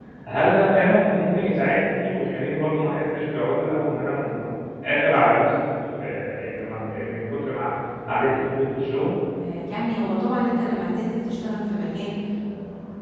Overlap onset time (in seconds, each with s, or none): none